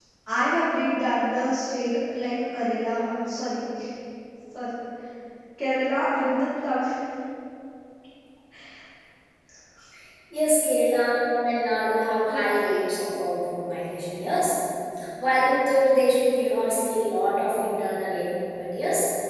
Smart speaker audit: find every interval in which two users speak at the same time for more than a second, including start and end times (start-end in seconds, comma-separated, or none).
none